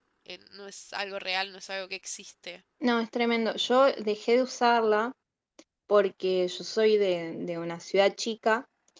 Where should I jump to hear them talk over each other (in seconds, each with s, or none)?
none